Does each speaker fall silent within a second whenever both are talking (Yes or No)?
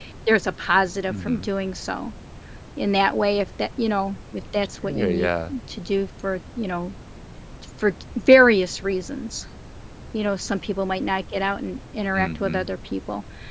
Yes